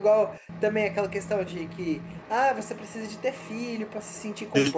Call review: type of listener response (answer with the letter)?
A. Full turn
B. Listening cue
A